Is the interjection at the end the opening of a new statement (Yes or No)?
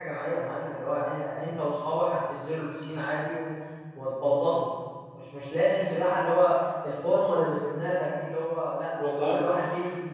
No